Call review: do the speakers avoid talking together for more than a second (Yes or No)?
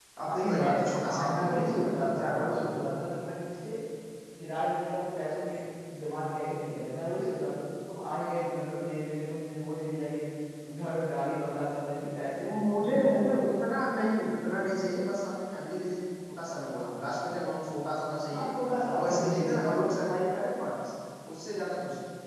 No